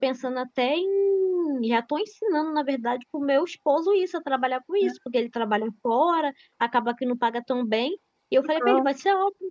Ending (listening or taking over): listening